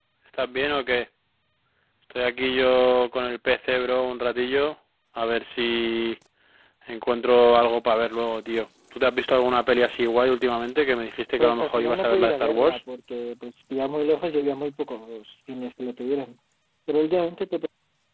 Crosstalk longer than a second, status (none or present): present